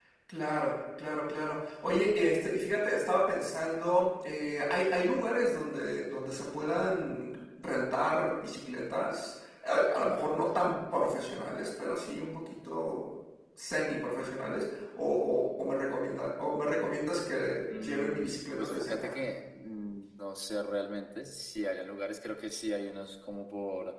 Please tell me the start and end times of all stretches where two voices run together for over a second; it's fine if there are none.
17.8-19.2

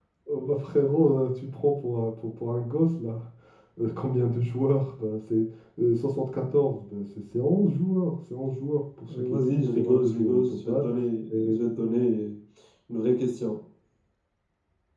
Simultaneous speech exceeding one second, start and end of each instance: 9.1-10.8

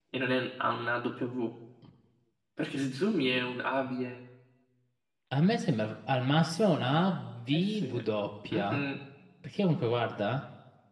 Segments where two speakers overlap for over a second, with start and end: none

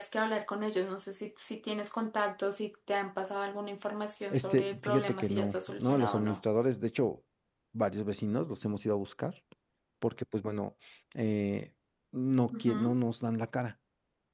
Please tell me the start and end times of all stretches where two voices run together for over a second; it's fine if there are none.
4.3-6.4

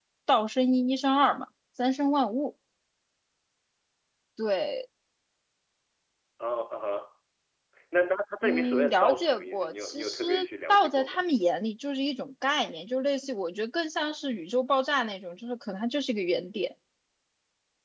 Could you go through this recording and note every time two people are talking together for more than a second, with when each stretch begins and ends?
8.4-10.2

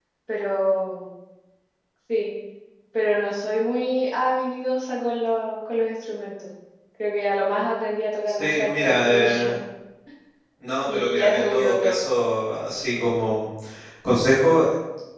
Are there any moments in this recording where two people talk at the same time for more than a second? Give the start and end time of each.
8.3-9.6, 10.9-12.1

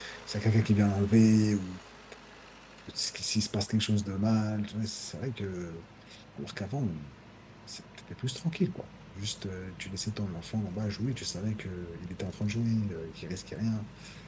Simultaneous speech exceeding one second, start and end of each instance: none

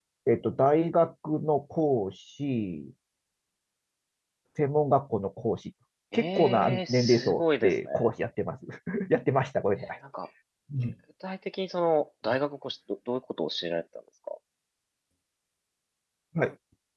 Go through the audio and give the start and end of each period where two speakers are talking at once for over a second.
6.1-7.9

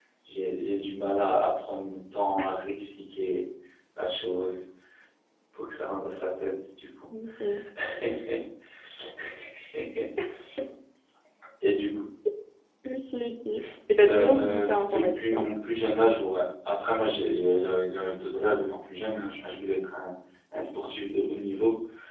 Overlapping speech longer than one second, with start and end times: 14.0-15.4

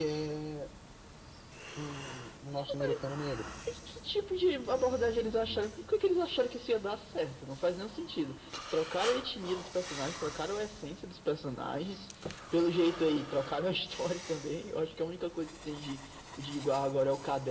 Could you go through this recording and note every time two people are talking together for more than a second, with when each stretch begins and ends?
none

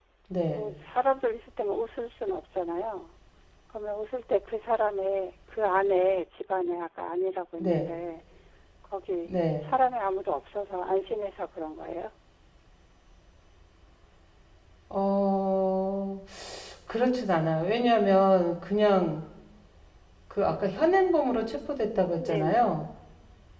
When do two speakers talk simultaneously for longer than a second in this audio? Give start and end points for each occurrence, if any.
none

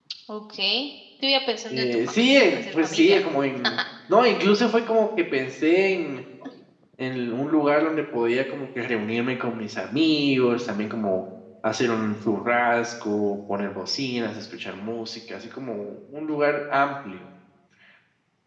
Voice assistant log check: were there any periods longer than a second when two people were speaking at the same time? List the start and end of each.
1.7-3.2

